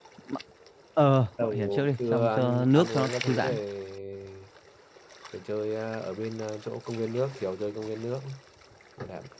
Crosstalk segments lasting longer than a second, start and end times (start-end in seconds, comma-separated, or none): 1.4-3.6